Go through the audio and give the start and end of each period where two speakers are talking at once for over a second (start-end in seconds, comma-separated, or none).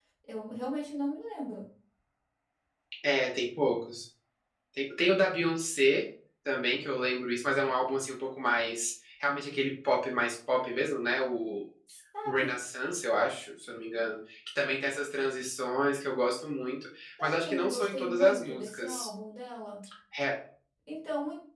17.2-19.1